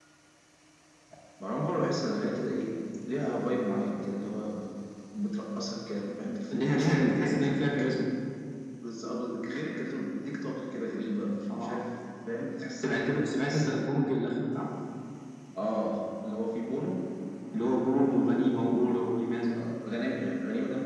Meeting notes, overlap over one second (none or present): present